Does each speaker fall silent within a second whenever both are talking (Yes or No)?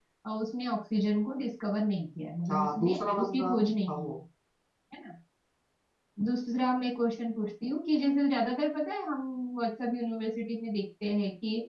No